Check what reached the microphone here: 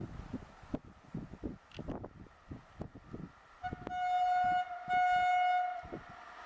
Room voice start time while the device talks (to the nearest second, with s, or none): none